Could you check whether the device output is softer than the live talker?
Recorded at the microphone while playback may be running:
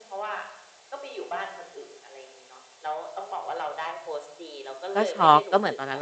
Yes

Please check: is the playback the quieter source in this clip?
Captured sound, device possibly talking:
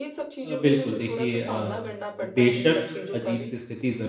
Yes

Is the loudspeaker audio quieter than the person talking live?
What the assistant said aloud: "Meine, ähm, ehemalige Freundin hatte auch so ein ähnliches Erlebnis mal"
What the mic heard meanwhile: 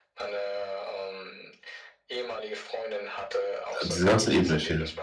Yes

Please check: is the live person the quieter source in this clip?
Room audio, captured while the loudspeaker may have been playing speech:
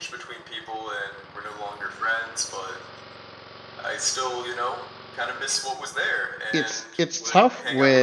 No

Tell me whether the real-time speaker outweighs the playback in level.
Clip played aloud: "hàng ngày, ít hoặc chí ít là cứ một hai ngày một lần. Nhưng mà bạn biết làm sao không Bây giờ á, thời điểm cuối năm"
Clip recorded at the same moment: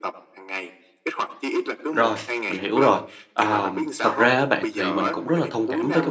Yes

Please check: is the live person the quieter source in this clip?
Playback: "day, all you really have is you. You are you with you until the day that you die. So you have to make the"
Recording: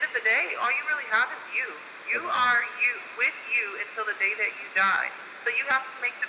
Yes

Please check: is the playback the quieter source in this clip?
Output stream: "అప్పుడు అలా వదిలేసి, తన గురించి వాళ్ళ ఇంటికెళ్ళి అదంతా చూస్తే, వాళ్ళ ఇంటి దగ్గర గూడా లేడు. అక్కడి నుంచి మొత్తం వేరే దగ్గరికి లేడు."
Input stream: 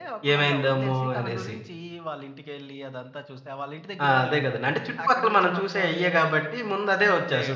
Yes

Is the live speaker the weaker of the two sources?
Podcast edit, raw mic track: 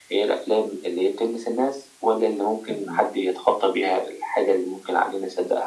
Yes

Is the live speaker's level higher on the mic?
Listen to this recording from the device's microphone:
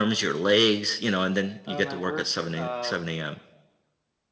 No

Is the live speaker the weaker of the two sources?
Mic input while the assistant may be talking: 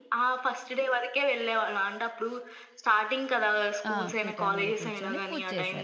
Yes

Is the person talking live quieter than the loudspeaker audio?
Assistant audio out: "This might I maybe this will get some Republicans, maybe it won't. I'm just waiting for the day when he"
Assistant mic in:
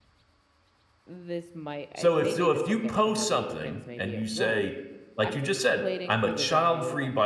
No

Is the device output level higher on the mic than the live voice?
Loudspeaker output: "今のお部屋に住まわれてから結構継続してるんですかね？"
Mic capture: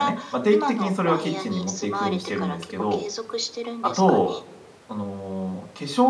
No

